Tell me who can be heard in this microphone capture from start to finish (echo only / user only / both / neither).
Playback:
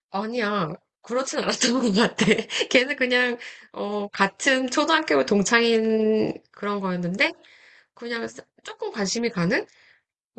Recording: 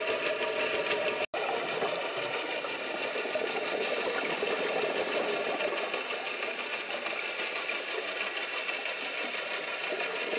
neither